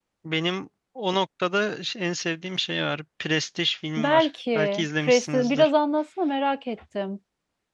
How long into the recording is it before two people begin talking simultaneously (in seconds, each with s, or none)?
4.0 s